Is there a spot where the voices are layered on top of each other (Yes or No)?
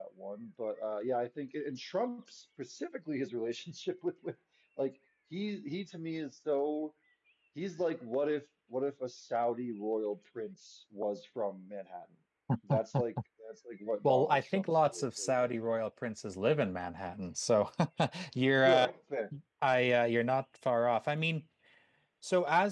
Yes